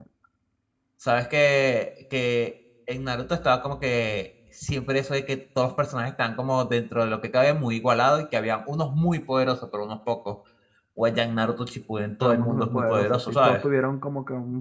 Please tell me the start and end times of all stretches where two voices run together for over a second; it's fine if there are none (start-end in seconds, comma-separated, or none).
12.2-13.6